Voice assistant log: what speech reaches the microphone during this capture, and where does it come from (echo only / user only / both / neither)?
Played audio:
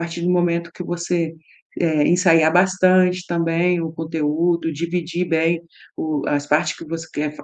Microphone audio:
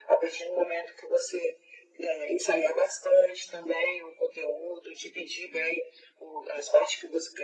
echo only